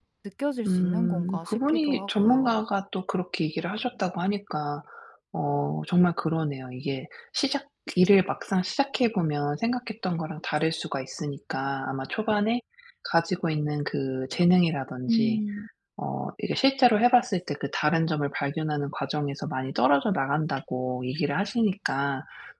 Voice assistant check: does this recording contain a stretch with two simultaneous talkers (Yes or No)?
Yes